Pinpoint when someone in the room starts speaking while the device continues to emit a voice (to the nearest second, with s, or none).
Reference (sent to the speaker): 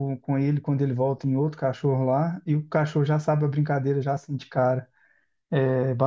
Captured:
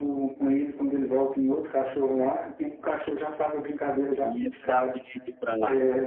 4 s